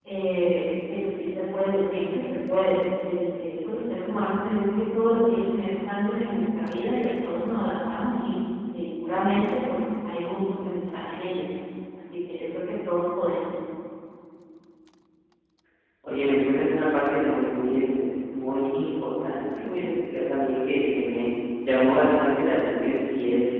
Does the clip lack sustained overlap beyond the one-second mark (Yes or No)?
Yes